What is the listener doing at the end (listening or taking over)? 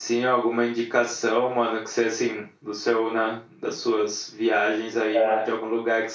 listening